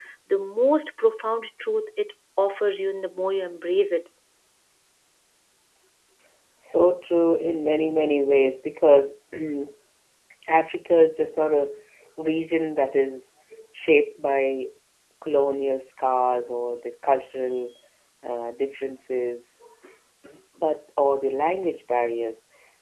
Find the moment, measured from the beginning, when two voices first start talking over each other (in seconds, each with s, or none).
none